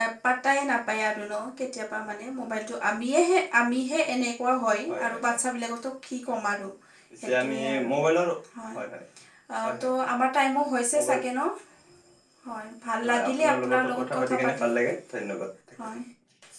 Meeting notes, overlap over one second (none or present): present